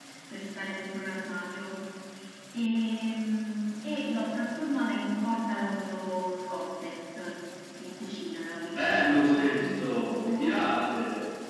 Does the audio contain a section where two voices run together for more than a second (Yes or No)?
Yes